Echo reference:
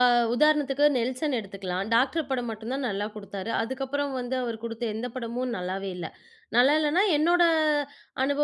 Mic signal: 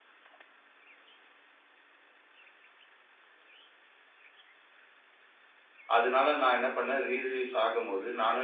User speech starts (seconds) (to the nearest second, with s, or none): 6 s